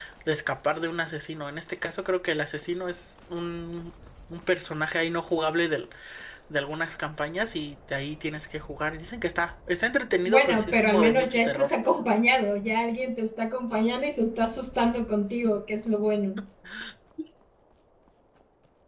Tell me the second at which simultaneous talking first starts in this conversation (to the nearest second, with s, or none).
10 s